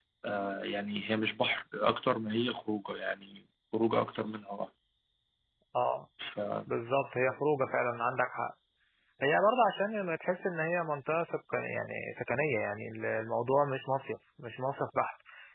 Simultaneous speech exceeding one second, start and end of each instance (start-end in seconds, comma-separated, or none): none